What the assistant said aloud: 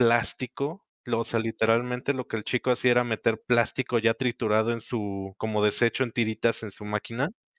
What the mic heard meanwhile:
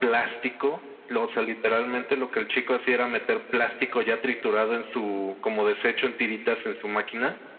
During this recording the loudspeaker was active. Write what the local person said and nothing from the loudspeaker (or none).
none